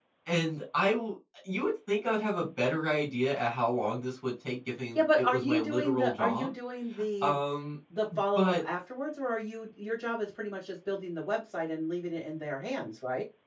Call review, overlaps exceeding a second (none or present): present